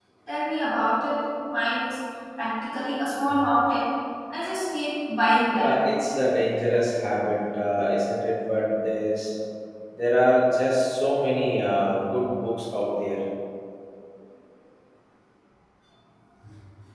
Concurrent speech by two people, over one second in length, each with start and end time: none

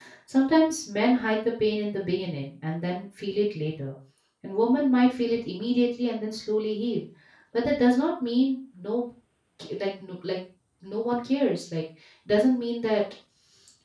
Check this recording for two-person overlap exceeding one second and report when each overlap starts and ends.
none

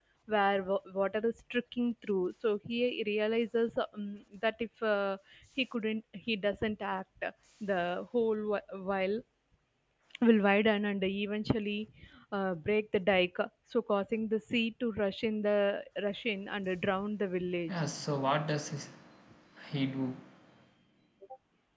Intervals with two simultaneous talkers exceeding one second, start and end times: none

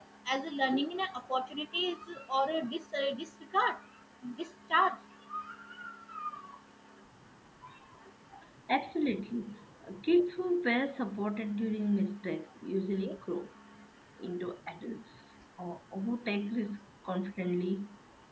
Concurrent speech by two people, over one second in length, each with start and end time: none

